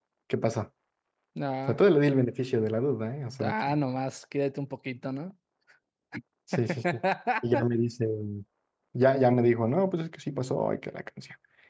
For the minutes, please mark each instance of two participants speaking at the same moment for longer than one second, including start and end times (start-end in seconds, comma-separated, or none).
none